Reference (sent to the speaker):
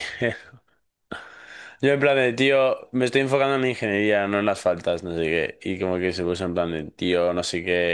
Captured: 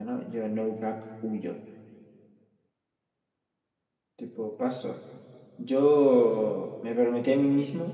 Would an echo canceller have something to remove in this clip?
No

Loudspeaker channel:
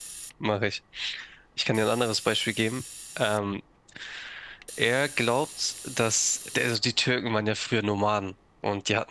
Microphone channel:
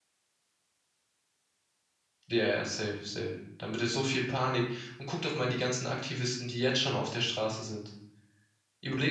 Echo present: No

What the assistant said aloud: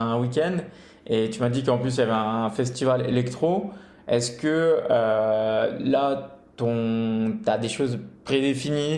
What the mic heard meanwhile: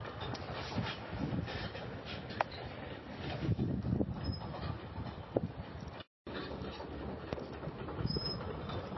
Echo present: No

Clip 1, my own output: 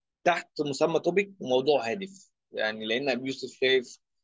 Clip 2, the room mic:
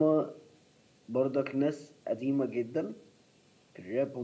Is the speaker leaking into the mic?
No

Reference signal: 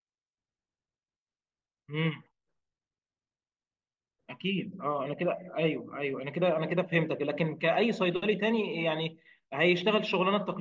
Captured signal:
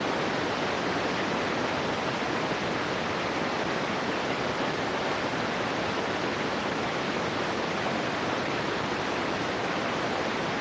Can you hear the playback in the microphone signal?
No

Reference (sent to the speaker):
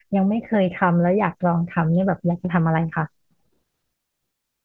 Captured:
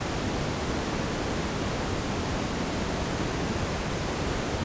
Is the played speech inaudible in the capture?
Yes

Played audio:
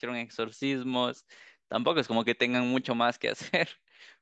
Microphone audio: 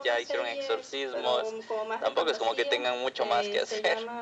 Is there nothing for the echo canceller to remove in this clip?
No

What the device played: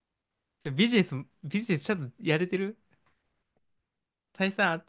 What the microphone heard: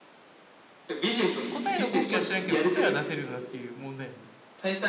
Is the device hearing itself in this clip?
Yes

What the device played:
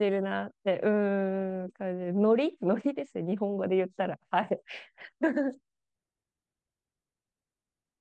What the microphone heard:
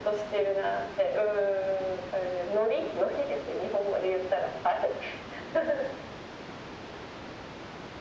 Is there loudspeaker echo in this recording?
Yes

